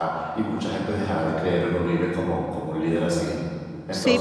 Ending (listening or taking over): taking over